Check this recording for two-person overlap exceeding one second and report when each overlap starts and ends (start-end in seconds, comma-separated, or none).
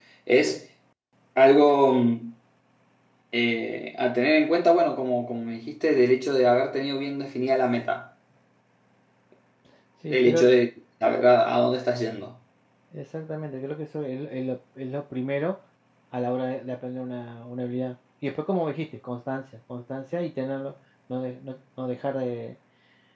none